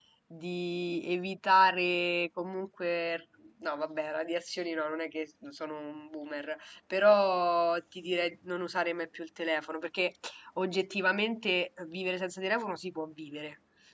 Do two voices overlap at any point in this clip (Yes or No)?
No